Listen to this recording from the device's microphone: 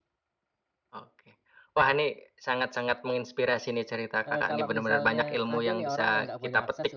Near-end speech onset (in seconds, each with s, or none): 4.3 s